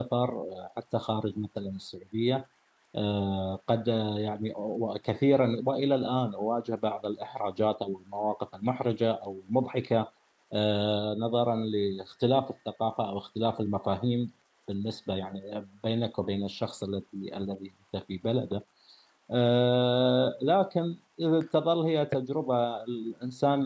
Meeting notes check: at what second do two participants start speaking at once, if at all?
none

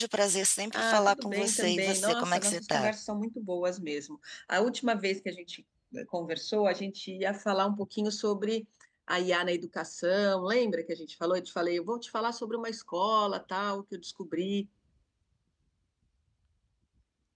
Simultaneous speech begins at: 0.7 s

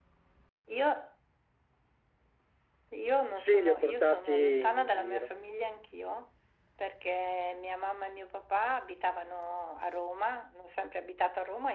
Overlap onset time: 3.4 s

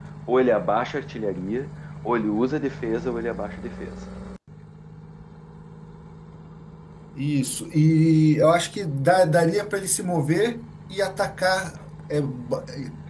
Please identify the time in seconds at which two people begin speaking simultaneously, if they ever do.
none

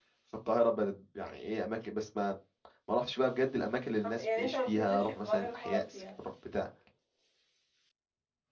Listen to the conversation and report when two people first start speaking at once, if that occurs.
4.0 s

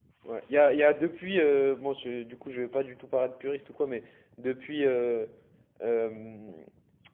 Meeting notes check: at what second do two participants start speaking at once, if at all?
none

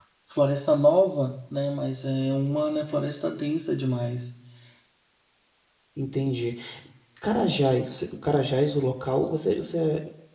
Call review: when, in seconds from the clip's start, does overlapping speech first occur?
none

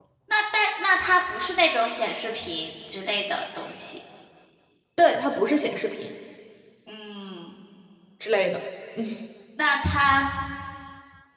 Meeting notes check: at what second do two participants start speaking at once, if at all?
none

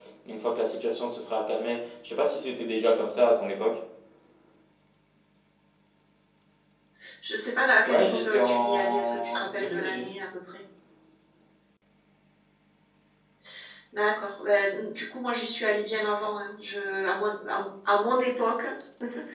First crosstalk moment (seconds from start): 7.8 s

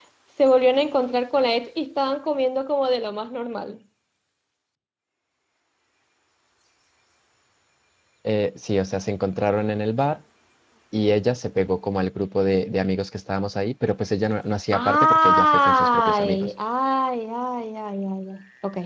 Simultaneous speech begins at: 14.7 s

